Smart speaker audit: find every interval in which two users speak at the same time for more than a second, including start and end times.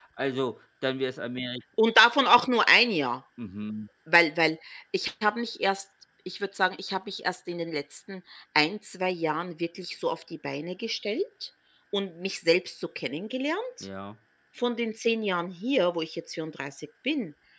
none

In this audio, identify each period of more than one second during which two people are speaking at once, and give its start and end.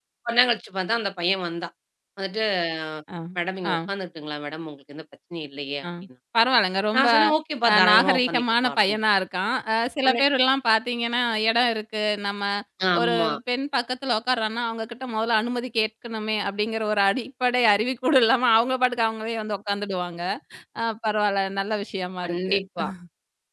7.7-9.0

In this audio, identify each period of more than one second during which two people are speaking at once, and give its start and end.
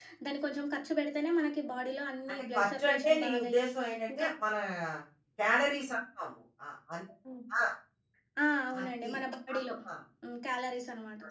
2.3-3.7

